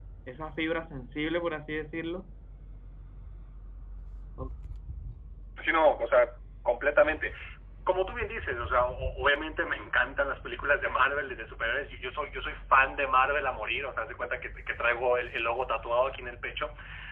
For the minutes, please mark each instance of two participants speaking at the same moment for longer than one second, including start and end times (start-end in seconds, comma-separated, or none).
none